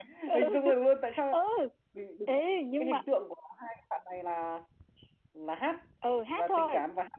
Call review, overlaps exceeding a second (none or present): none